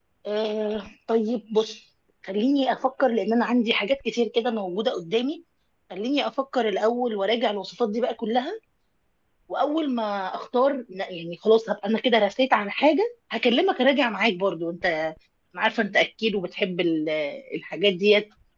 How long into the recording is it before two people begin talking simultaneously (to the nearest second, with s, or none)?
none